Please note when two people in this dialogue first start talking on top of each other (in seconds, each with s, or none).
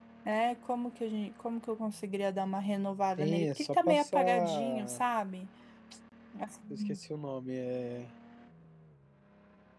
3.2 s